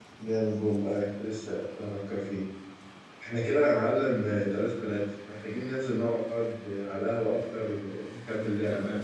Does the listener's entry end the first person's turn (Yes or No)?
Yes